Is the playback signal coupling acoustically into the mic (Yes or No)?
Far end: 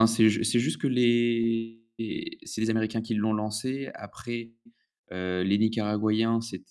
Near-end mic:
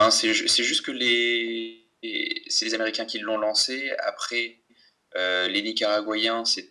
Yes